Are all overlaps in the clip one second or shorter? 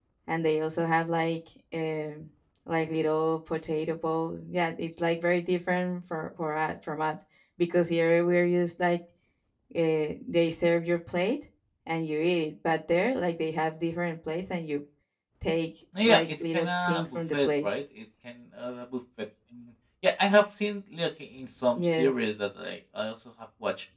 No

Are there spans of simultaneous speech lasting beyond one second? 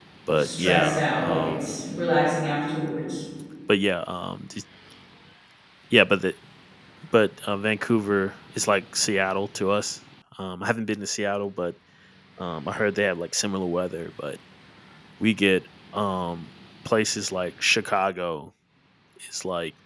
Yes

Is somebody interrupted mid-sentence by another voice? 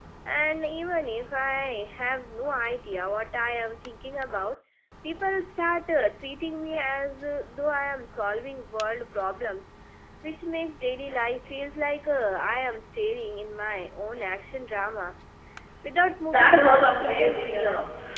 Yes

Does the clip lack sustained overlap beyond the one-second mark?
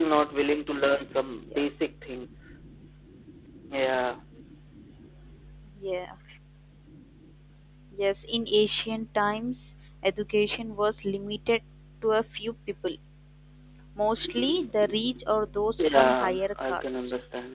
No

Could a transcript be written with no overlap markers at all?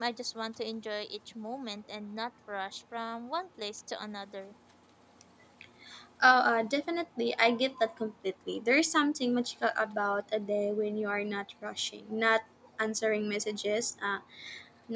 Yes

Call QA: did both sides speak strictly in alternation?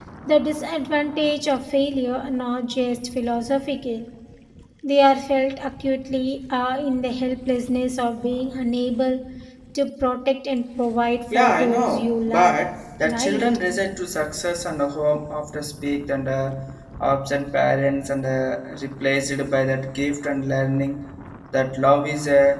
No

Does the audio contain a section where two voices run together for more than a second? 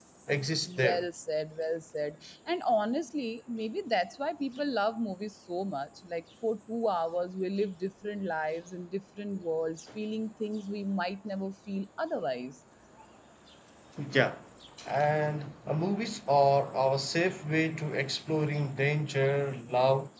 No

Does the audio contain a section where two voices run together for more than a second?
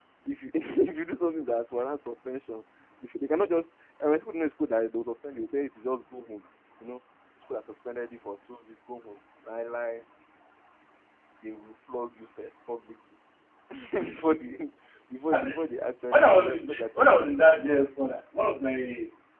Yes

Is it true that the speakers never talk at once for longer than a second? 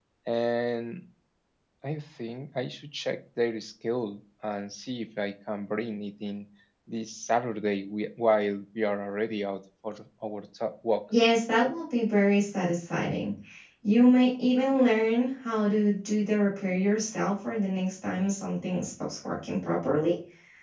Yes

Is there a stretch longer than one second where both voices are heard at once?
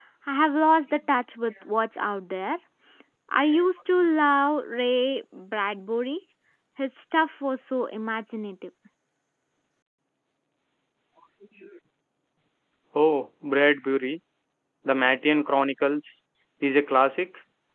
No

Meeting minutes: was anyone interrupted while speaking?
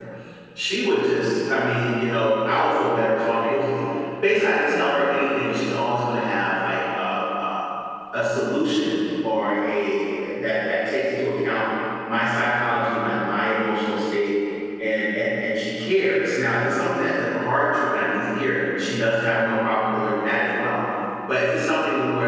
No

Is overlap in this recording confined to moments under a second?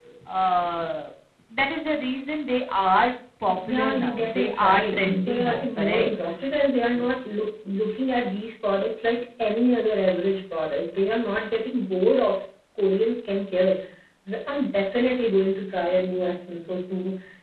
No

